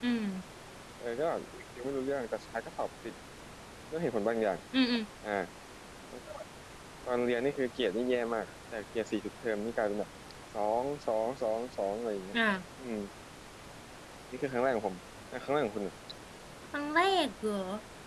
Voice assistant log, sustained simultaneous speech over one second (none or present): none